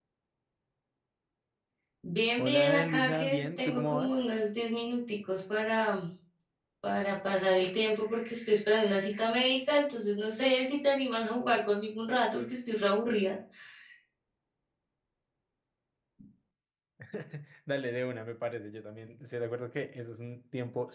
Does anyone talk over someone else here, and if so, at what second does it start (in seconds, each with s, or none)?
2.4 s